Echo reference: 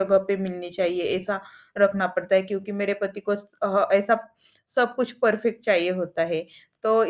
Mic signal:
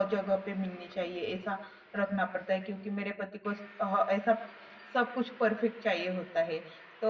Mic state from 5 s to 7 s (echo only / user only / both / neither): echo only